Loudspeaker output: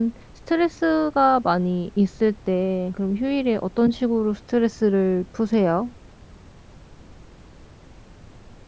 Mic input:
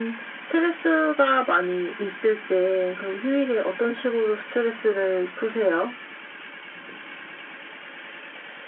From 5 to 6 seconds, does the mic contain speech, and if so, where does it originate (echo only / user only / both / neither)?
echo only